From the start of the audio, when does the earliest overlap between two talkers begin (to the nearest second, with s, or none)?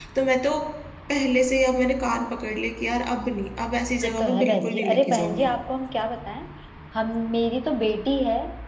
4 s